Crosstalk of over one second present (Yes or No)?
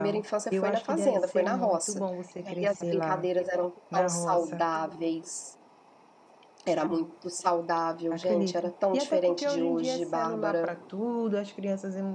Yes